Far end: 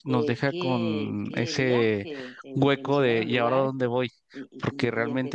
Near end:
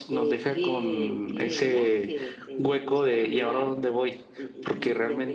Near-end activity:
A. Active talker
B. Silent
B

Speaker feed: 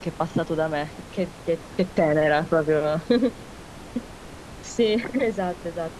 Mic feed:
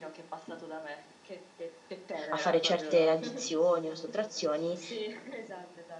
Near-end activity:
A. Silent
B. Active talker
B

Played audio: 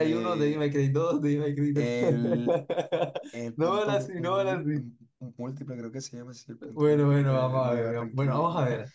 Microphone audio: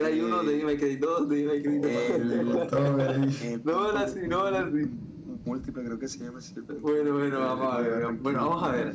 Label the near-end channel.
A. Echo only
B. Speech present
B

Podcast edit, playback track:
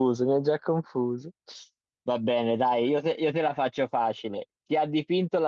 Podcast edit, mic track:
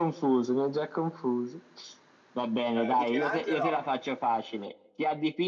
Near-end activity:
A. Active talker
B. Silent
A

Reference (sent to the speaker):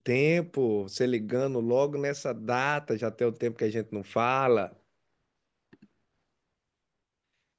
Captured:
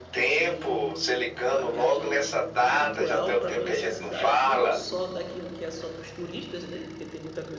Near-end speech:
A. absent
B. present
B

